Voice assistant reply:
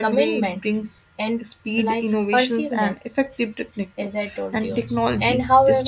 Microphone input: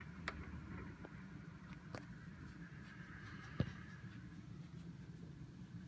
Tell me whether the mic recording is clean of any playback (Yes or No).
Yes